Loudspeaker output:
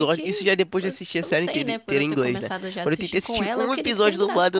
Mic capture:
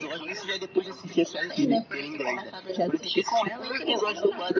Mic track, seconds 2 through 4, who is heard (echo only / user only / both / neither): echo only